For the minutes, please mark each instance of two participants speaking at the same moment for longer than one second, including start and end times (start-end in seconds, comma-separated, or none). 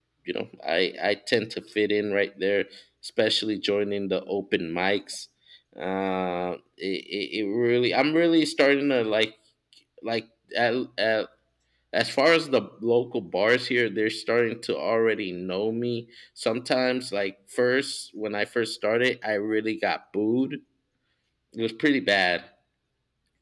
none